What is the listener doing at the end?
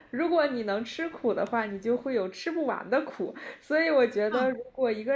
listening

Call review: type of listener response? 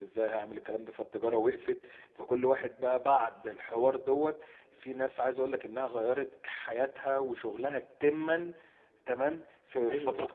listening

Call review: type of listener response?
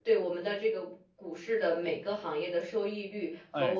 listening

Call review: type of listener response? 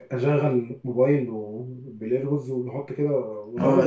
taking over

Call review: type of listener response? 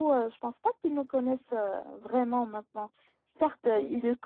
listening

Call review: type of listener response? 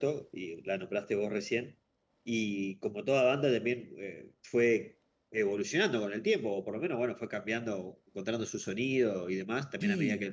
listening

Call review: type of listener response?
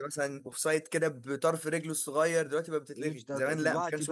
taking over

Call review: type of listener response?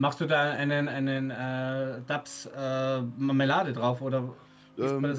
taking over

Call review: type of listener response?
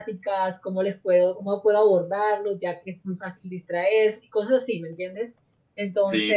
taking over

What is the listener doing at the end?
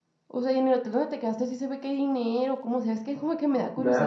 taking over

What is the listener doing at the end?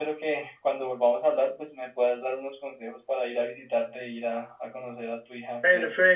taking over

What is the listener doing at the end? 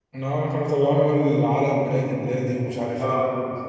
taking over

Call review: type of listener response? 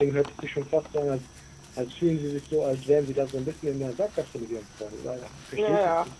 taking over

